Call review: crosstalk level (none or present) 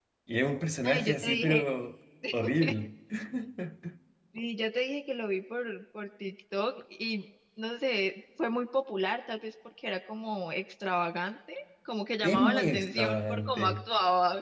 present